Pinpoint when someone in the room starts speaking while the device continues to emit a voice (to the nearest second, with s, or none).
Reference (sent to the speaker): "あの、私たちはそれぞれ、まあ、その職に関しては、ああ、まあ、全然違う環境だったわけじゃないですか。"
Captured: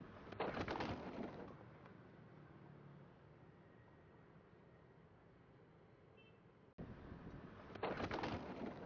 none